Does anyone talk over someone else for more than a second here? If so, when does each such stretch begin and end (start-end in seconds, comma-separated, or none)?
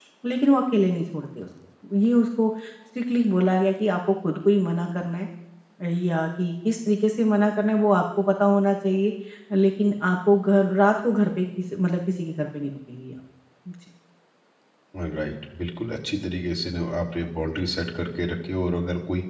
none